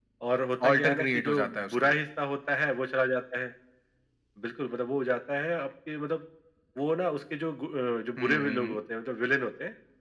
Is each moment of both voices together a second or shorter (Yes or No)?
No